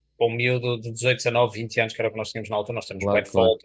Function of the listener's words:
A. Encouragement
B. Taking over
A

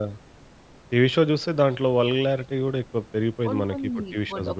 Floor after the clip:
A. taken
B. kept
A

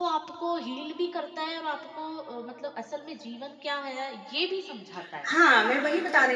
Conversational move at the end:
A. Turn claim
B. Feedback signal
A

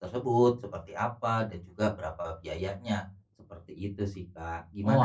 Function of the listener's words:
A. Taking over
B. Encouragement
A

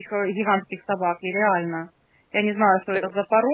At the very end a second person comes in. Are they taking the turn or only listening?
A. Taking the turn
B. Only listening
B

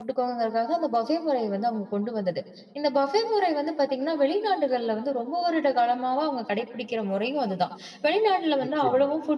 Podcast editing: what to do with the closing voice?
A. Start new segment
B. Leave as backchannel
B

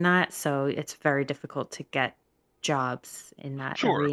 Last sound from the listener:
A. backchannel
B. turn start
B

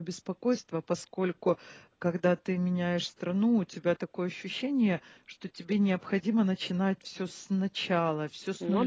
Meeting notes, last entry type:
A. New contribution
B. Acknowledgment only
B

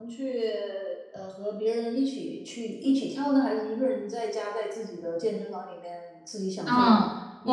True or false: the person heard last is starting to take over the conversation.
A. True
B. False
A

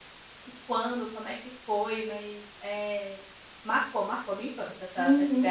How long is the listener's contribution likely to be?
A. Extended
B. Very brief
A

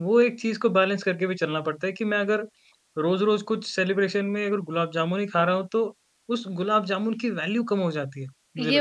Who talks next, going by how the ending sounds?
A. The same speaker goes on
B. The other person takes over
B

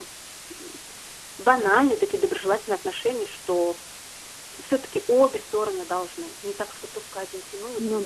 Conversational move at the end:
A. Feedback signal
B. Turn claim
B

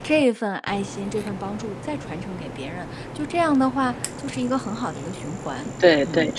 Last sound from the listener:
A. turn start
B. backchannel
A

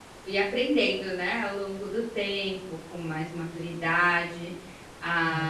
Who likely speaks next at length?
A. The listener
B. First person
B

